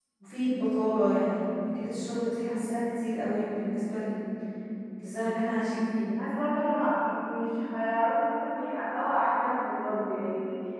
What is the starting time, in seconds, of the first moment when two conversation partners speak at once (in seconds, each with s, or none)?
none